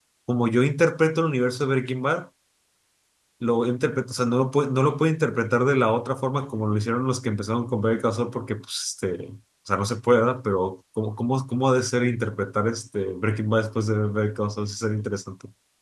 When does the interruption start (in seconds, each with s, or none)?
none